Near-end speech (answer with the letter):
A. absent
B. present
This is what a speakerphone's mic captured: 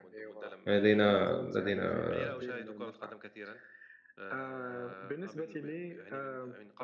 B